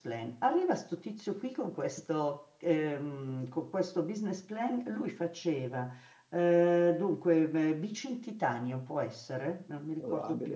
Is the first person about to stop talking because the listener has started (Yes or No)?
No